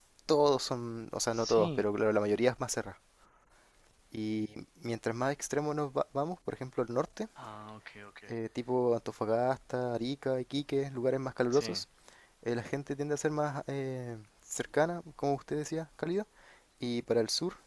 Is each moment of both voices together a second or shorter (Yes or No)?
Yes